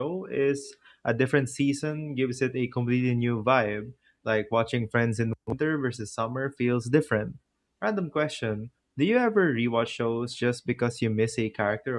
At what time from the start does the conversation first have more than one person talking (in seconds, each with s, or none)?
none